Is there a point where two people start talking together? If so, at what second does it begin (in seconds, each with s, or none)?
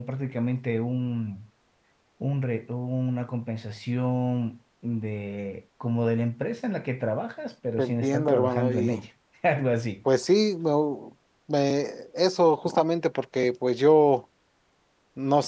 7.8 s